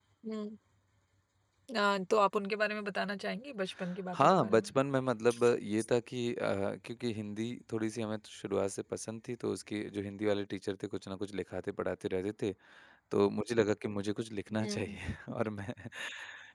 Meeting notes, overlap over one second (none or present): none